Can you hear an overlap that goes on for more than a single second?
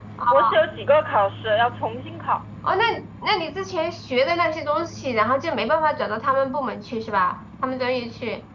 No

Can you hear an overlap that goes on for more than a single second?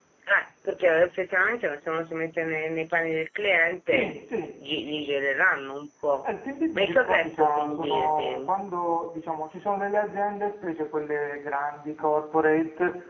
Yes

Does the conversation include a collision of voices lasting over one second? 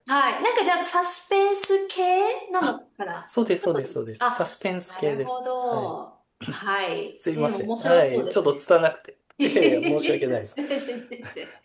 Yes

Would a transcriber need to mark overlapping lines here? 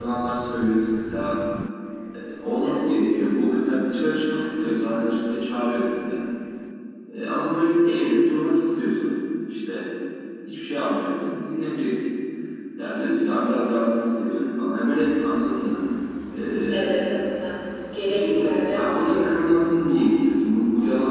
Yes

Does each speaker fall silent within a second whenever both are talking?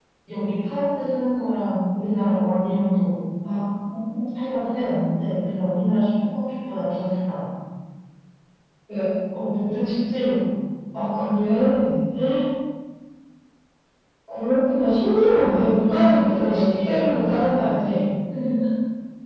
No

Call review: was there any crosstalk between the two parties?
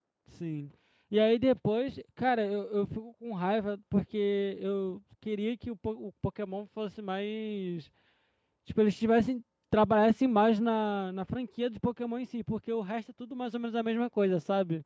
No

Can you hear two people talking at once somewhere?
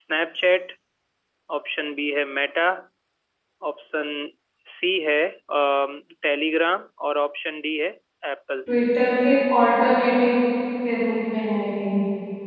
No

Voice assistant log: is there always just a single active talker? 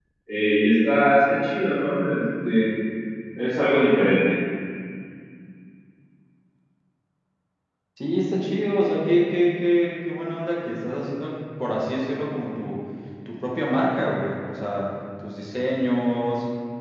Yes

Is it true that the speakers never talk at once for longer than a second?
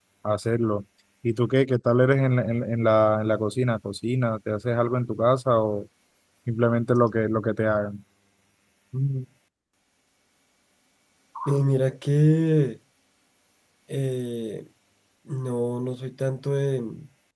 Yes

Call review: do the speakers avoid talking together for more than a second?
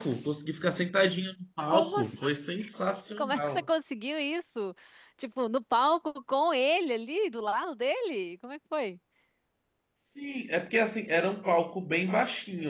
Yes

